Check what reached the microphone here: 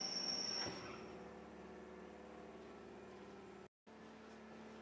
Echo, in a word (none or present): none